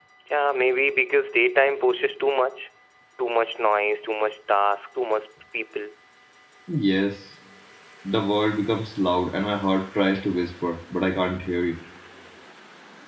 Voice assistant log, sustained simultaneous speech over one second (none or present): none